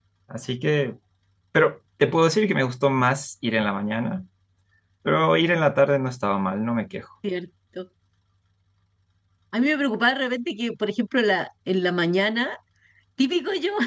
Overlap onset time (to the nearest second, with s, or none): none